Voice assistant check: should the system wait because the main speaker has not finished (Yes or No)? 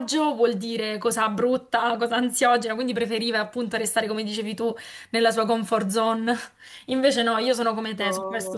Yes